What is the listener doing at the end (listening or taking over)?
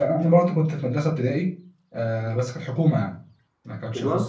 listening